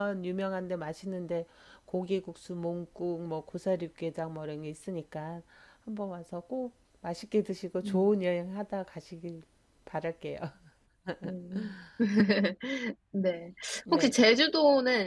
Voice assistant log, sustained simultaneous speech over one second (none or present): none